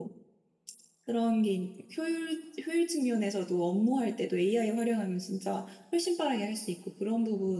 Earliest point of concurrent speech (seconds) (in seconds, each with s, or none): none